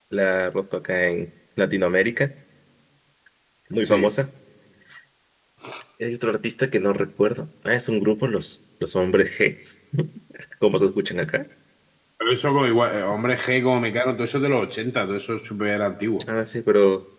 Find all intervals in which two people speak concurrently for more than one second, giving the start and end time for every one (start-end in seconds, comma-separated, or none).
none